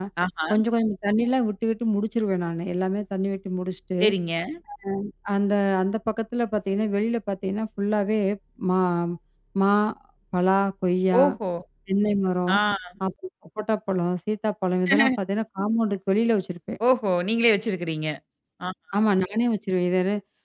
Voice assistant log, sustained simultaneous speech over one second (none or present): none